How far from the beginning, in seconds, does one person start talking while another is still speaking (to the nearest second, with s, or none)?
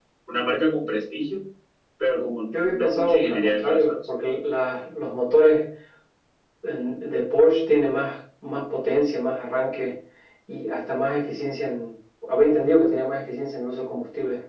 2 s